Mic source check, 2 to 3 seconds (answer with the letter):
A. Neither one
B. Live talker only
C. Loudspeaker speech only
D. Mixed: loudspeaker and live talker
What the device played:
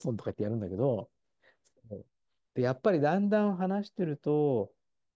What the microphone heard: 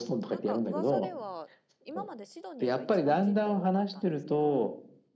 D